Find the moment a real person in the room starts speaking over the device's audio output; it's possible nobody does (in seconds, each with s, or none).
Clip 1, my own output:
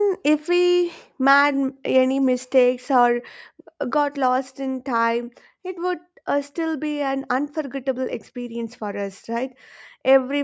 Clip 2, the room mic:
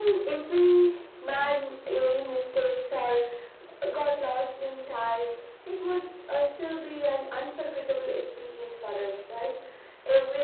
none